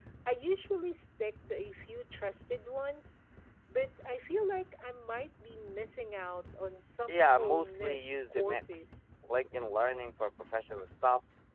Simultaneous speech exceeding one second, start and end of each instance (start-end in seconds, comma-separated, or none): 7.1-8.9